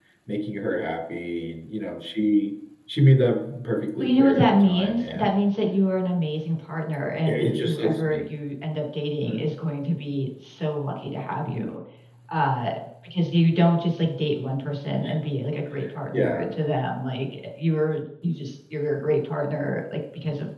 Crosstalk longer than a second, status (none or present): present